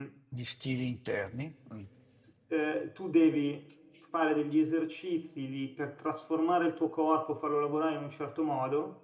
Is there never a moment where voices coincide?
Yes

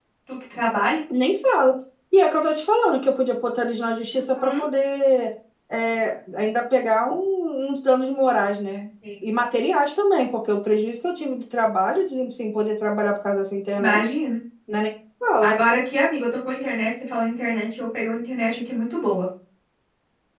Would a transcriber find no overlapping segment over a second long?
Yes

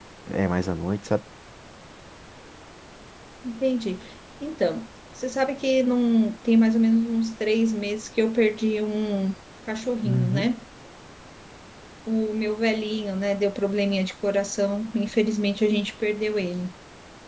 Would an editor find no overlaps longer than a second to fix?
Yes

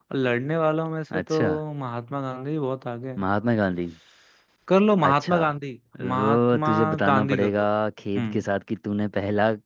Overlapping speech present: Yes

